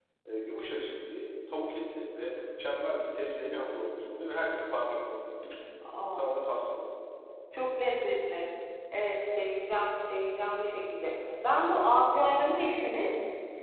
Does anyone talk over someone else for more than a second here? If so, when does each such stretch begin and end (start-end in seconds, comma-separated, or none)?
none